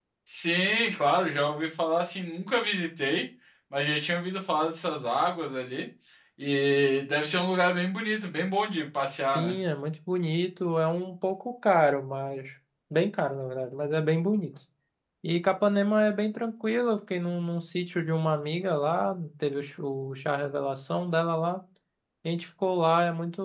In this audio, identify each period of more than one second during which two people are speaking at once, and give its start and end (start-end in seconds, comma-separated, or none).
none